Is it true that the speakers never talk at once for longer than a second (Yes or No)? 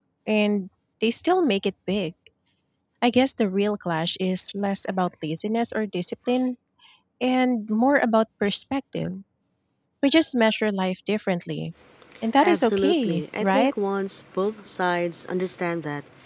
No